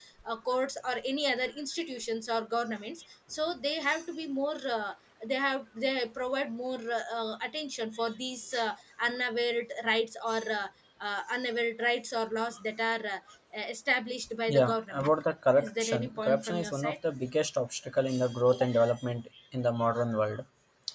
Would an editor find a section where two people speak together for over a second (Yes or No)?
Yes